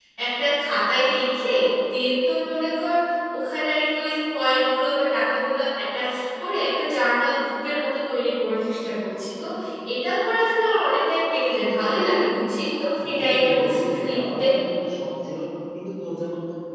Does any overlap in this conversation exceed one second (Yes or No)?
Yes